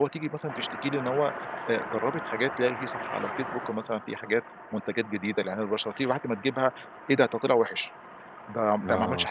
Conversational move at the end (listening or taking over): listening